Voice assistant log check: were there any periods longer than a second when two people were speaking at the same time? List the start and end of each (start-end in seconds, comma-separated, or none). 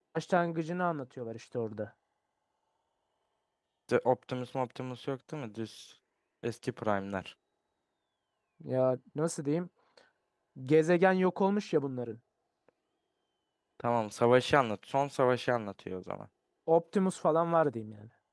none